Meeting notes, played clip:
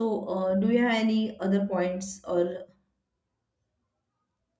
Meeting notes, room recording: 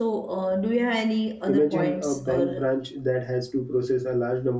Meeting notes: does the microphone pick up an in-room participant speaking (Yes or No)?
Yes